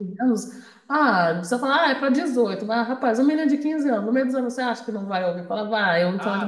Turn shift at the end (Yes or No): Yes